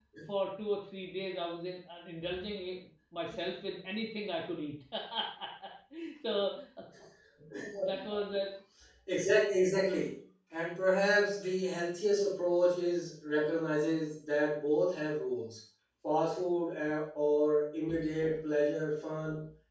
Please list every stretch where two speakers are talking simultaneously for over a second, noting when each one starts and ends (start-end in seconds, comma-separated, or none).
none